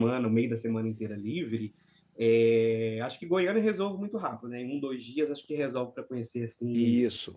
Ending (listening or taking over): listening